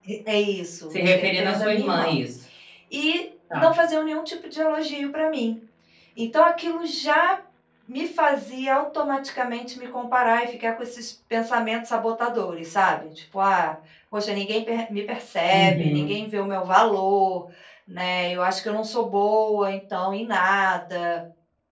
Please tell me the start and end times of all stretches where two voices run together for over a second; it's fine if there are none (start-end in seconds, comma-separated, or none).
0.9-2.1